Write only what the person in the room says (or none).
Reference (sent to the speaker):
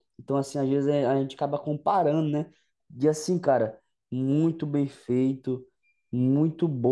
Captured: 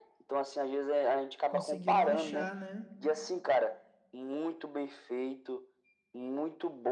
Conseguiram achar, né?